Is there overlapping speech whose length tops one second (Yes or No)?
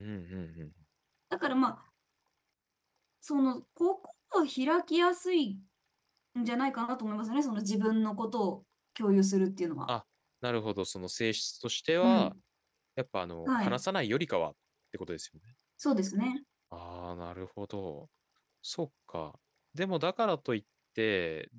No